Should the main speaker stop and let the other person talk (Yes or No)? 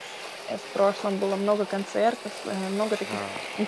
No